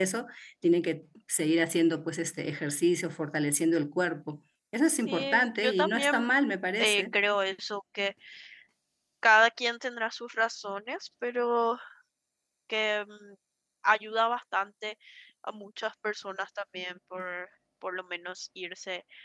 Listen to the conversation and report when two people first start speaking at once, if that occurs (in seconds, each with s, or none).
5.1 s